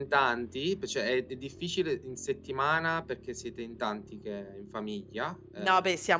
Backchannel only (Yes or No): No